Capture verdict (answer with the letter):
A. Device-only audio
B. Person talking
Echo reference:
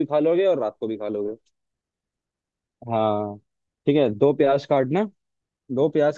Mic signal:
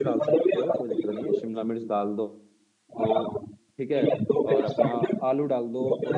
B